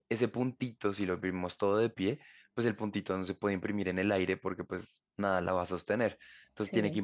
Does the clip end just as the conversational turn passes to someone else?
No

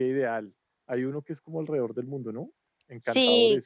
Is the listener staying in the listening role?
No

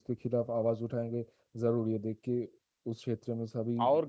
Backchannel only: No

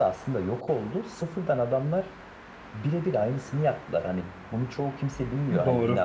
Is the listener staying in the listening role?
Yes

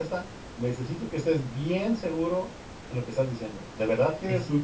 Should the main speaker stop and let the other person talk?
Yes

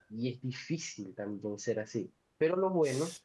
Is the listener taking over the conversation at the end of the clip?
No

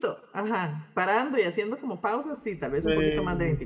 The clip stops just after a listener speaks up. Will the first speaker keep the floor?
No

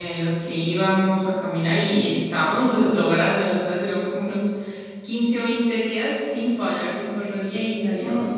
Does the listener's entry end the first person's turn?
No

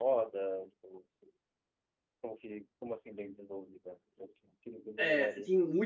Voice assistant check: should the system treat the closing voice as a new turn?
Yes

